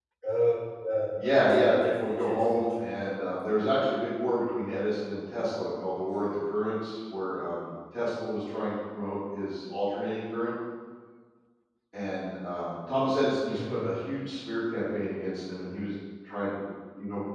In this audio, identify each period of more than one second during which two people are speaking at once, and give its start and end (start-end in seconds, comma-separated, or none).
1.2-3.1